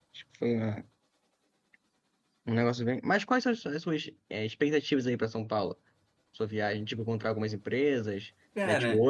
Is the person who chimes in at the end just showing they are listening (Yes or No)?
Yes